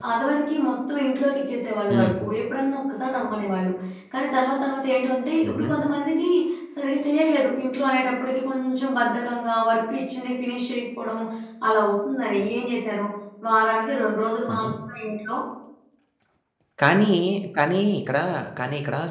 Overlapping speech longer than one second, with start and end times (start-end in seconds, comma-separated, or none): none